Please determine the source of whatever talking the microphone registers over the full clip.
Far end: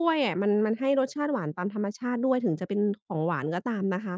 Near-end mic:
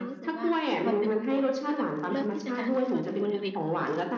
both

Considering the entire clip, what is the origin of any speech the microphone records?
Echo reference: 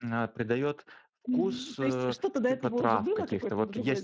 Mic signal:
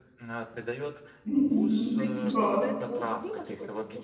both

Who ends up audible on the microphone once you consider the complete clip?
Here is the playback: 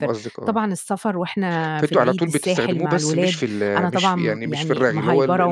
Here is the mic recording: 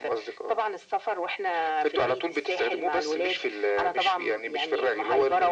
echo only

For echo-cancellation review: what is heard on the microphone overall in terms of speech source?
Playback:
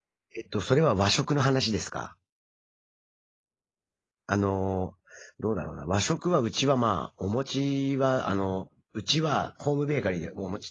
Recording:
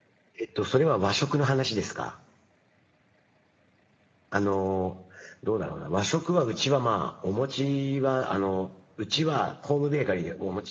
echo only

